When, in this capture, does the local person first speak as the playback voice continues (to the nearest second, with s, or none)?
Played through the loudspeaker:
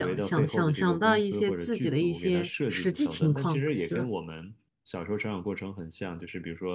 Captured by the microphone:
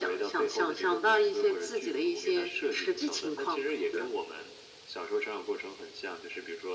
none